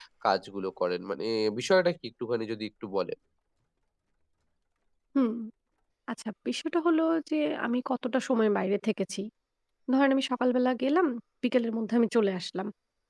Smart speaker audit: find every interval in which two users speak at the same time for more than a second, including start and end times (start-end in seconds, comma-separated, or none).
none